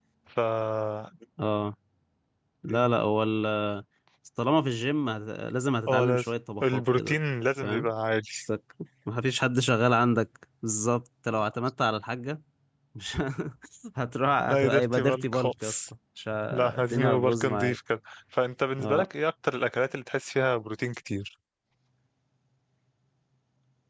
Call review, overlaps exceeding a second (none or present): present